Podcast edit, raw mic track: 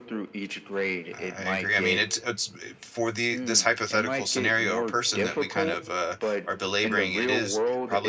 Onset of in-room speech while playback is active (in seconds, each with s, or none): 1.1 s